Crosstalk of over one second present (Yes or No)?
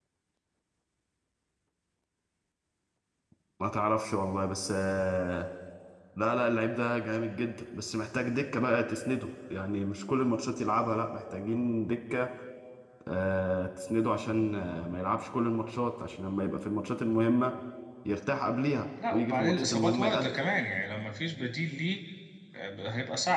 Yes